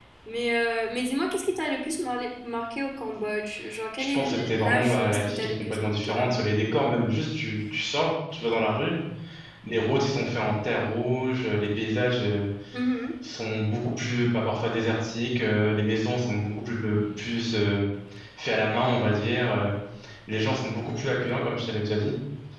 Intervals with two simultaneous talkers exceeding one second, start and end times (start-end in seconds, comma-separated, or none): 4.0-6.5